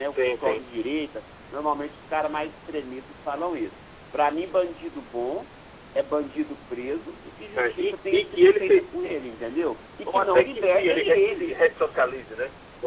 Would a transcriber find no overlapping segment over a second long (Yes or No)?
No